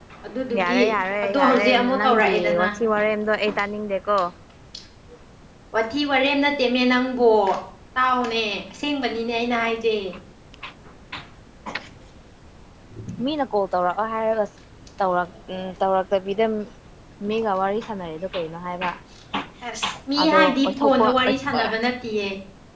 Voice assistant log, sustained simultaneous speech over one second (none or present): present